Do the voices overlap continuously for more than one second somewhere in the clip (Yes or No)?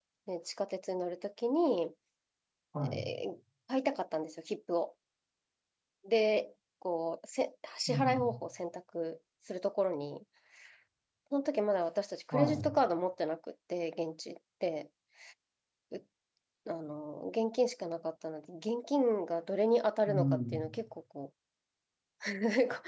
No